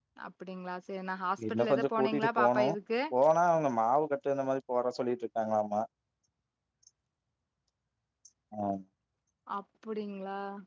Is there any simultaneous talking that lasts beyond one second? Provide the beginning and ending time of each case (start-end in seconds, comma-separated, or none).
1.5-2.7